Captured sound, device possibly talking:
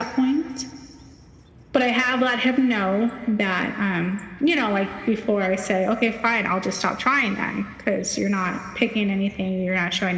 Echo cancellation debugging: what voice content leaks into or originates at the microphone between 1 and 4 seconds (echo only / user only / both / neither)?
echo only